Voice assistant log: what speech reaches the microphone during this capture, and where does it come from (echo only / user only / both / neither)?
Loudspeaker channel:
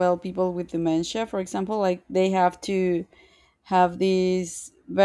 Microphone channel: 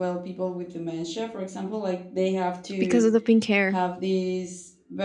both